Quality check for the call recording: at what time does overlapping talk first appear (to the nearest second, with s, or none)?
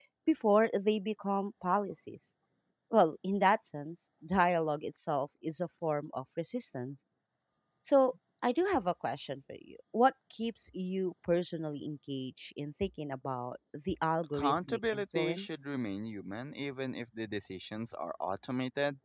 14 s